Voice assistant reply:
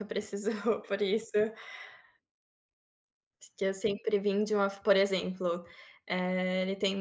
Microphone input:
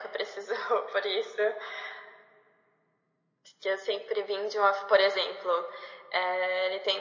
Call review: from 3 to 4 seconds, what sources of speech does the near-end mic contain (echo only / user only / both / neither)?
echo only